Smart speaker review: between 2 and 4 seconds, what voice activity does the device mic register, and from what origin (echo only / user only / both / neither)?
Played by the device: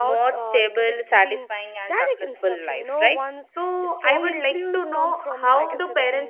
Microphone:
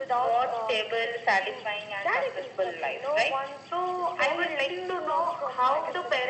echo only